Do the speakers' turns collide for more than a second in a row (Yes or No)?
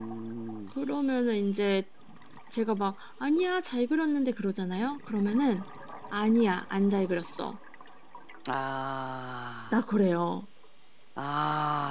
No